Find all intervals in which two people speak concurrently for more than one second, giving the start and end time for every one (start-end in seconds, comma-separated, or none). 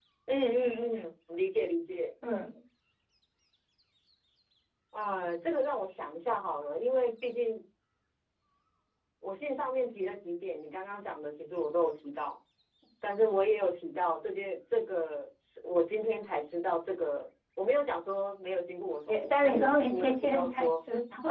19.1-20.7